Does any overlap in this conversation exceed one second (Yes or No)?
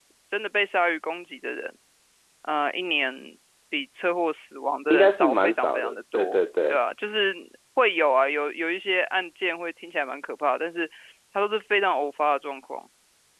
Yes